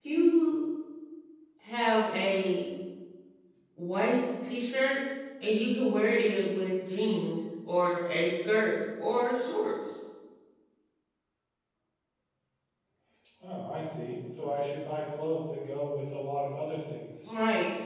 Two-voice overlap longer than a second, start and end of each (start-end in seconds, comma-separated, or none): none